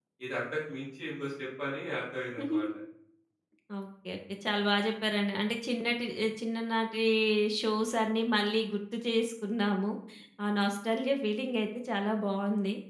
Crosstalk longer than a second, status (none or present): none